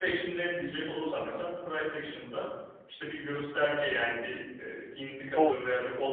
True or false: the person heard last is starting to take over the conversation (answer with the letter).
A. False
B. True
A